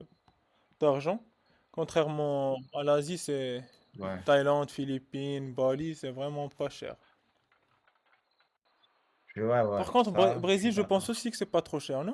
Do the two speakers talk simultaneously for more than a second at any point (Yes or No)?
Yes